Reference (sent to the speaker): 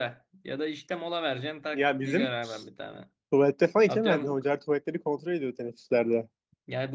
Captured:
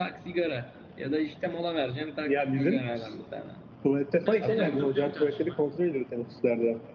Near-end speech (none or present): present